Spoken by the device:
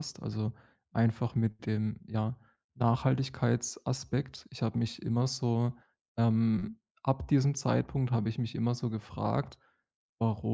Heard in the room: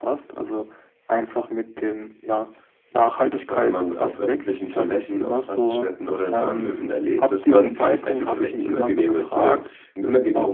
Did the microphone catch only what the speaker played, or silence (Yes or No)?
No